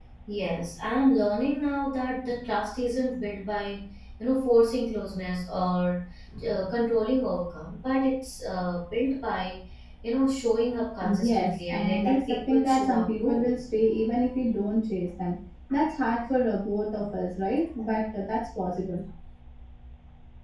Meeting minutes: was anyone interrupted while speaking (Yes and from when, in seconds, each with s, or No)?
Yes, from 11.0 s